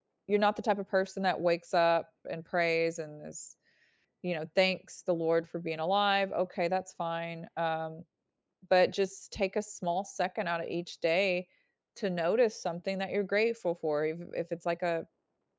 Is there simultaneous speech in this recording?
No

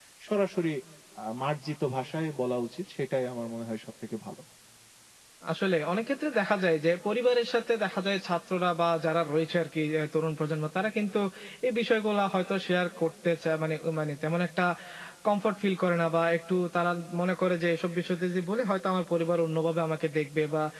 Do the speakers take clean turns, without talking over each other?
Yes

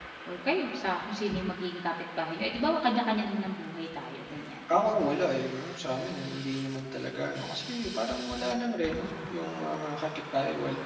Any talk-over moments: No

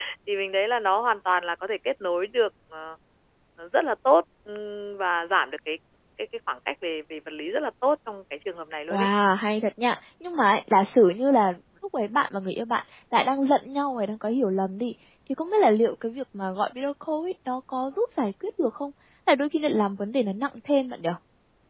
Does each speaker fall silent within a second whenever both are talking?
Yes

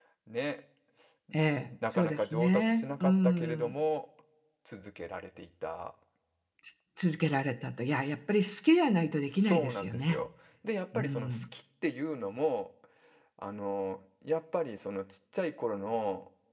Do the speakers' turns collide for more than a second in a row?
Yes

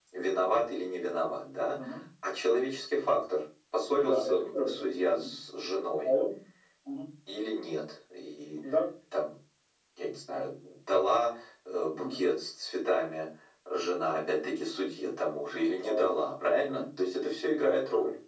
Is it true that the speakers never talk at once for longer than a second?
No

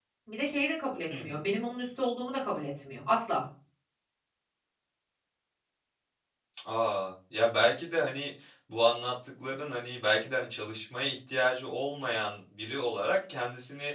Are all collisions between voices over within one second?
Yes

